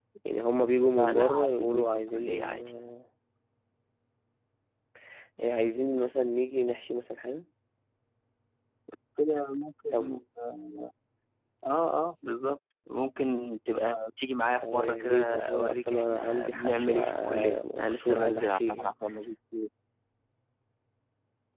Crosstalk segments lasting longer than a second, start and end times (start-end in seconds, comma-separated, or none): 1.0-2.7, 14.6-18.9